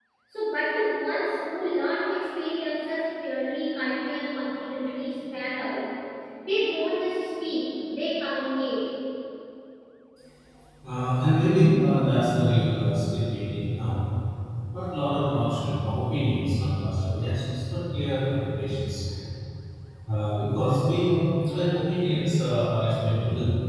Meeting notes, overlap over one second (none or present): none